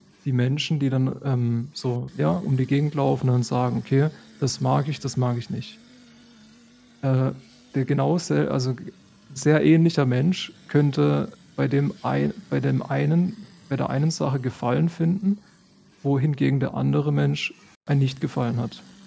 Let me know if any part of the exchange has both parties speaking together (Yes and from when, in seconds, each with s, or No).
No